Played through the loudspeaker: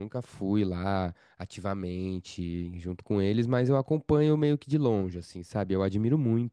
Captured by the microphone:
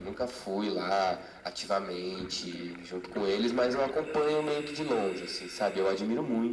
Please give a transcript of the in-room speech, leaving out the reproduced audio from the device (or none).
none